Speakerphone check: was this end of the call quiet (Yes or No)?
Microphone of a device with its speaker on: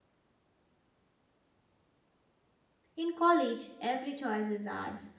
No